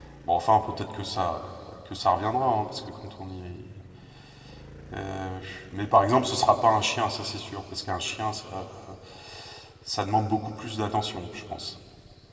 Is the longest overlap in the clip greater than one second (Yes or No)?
No